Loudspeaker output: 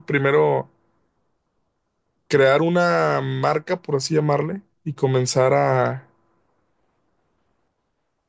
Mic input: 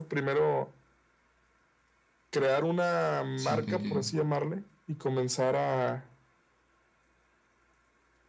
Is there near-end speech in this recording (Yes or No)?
Yes